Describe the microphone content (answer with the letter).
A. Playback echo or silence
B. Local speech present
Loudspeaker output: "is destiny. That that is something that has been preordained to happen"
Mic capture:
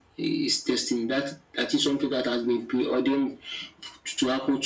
A